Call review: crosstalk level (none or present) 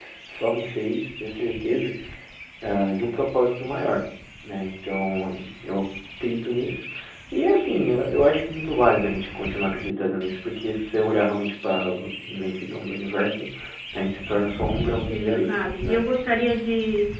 present